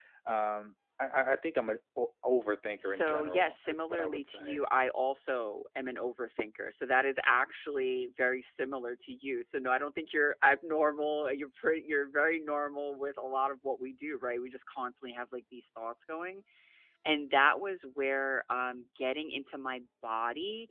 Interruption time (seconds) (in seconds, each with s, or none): 2.8 s